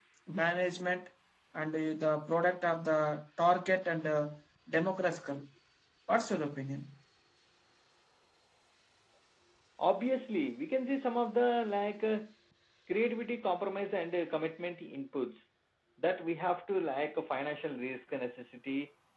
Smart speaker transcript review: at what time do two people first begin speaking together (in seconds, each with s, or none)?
none